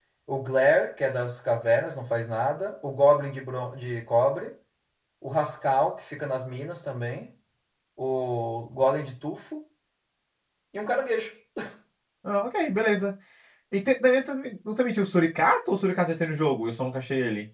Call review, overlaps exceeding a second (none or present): none